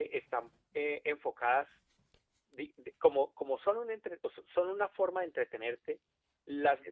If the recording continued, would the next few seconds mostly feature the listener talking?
No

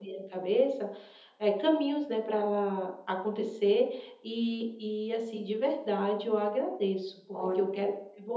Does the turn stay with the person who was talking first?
Yes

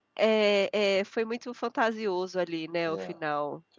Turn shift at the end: Yes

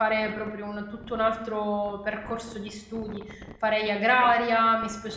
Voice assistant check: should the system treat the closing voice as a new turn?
No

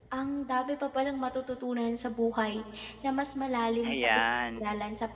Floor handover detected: No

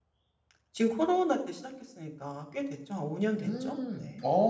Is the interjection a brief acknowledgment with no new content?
No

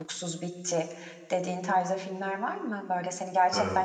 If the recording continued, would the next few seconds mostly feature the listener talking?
No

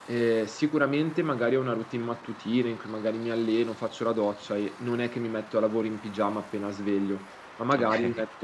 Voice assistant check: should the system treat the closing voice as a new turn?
No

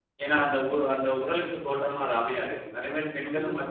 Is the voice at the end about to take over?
No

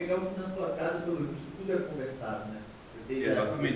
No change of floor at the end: No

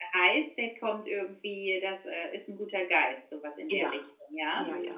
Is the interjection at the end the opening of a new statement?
Yes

